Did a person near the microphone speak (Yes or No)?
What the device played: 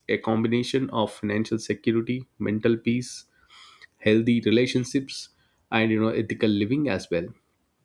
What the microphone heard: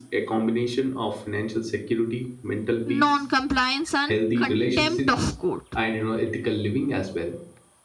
Yes